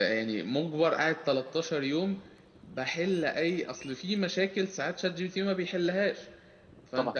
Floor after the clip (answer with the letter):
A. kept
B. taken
A